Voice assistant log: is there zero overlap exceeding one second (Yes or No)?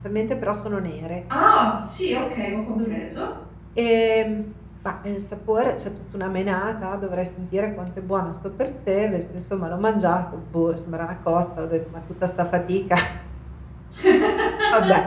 Yes